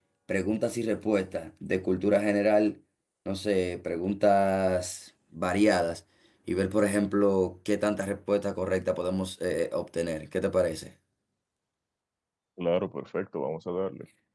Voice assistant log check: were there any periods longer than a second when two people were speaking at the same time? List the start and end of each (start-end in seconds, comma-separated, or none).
none